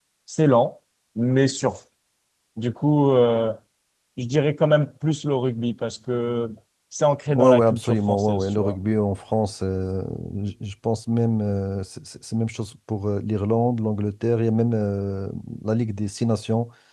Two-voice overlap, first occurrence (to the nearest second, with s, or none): 7 s